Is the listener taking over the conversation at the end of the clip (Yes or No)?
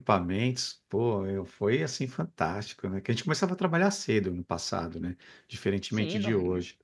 Yes